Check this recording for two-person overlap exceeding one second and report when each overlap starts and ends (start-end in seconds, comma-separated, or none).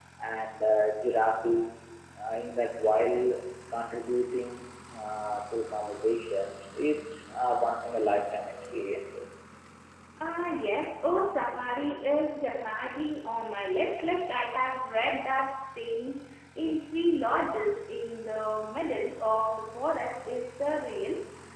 none